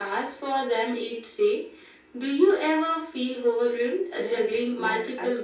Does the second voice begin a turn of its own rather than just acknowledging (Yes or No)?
Yes